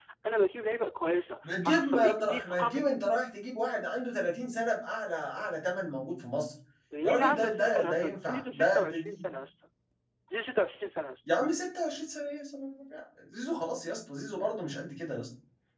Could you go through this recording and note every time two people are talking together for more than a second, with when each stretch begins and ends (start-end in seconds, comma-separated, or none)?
1.4-2.8, 7.0-9.3